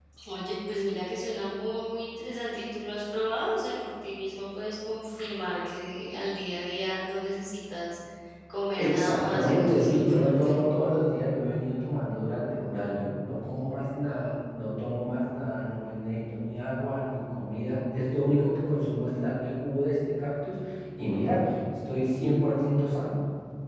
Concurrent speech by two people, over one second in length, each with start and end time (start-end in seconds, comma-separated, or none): 8.8-10.9